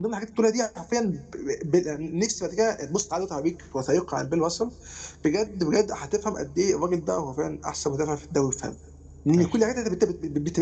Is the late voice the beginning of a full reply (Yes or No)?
No